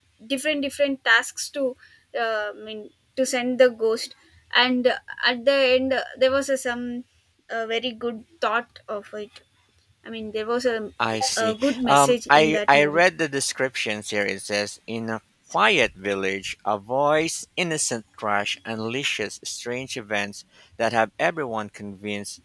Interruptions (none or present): present